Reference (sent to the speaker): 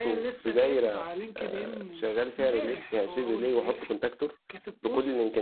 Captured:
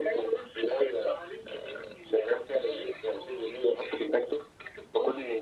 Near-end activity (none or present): none